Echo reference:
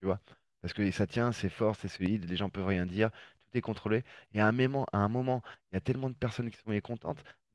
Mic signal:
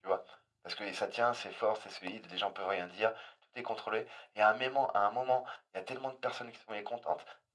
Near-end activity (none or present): none